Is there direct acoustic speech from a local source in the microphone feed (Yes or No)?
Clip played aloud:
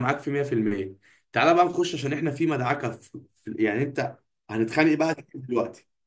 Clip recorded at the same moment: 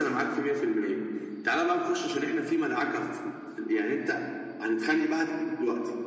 No